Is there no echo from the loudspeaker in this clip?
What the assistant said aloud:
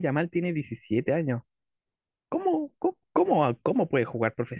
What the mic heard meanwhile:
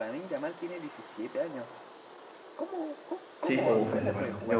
No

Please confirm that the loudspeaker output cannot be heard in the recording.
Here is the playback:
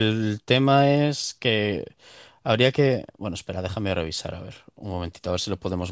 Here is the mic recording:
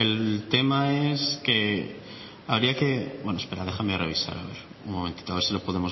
No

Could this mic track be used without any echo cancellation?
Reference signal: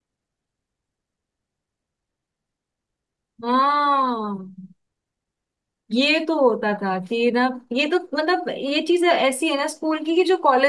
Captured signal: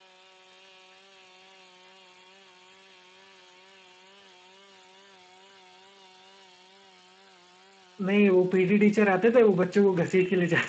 Yes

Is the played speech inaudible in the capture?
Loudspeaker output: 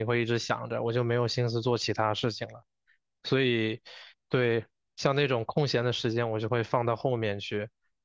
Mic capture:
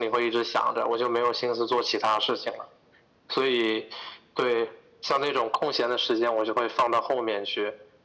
No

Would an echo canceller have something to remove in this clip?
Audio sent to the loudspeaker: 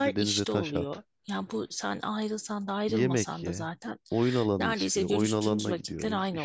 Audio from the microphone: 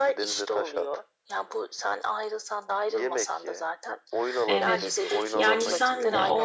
Yes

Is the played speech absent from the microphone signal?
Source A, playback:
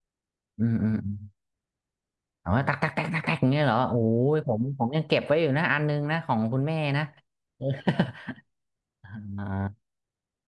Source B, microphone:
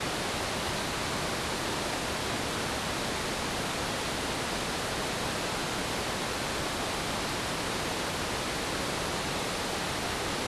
Yes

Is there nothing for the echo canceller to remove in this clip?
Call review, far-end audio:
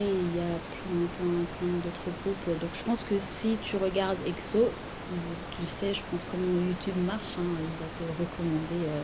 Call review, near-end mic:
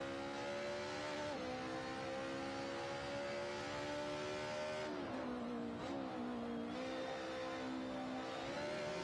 Yes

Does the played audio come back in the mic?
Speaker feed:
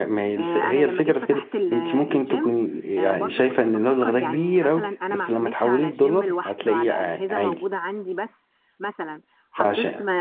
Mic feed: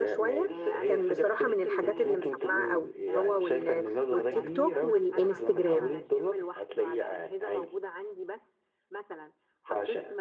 Yes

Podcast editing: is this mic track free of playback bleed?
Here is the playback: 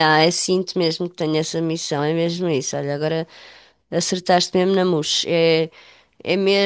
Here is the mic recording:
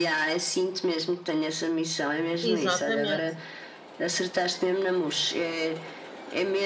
No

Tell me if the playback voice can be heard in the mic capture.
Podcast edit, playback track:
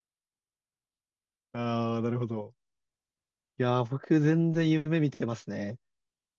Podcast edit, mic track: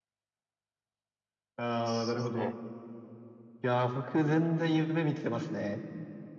Yes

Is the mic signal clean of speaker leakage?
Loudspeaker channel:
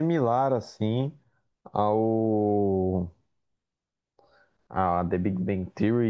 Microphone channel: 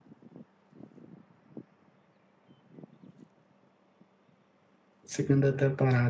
Yes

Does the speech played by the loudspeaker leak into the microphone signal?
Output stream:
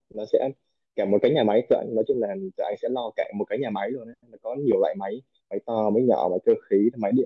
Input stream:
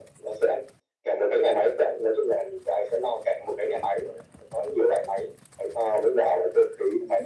Yes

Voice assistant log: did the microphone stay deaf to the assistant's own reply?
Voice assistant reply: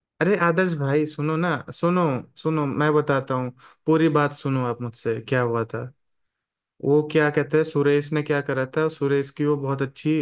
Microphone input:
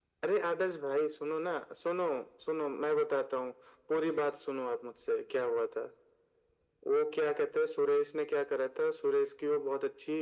No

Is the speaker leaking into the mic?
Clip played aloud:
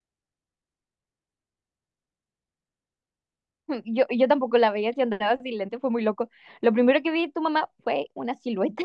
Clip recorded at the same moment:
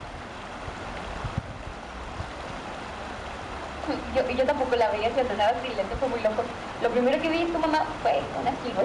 Yes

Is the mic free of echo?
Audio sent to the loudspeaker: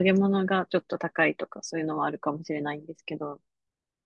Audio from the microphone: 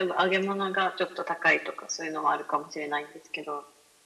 No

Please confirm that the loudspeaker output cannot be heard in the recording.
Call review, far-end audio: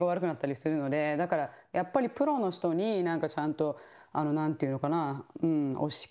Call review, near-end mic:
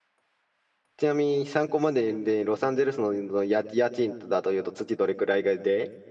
Yes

